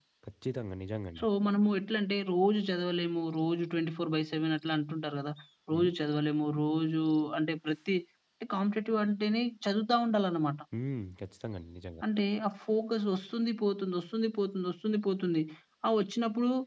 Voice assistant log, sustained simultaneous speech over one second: none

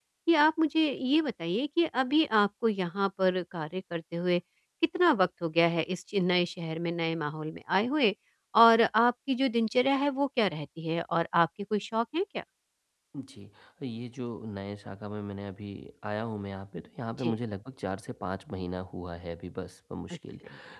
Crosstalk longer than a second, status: none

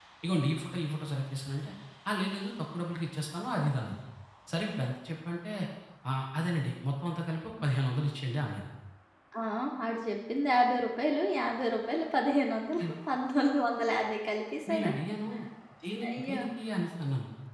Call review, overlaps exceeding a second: none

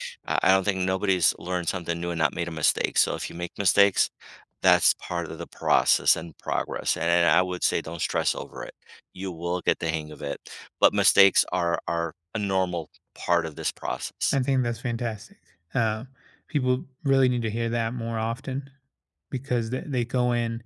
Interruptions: none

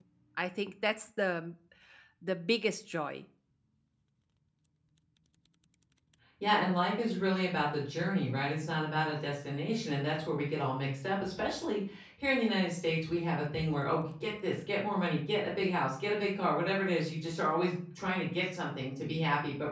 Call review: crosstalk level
none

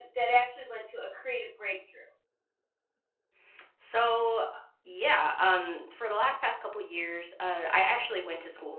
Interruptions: none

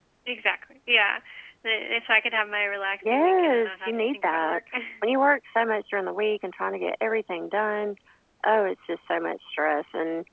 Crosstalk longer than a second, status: present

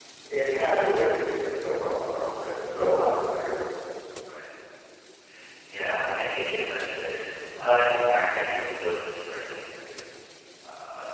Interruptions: none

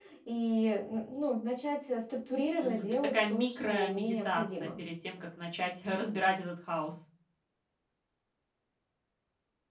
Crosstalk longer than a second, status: present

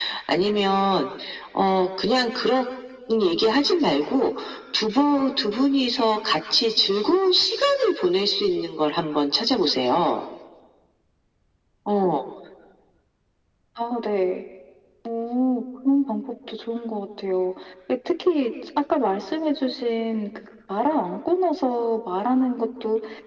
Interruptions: none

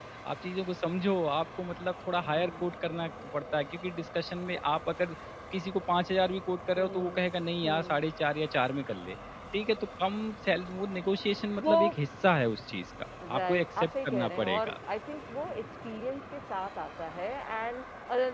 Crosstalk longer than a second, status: present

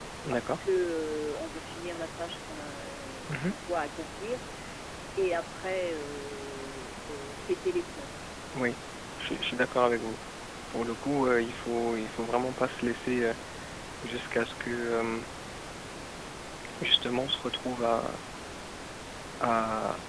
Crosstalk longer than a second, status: none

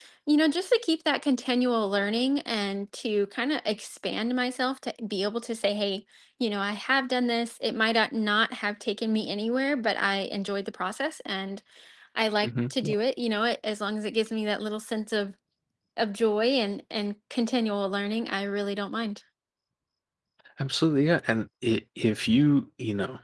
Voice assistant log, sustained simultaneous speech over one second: none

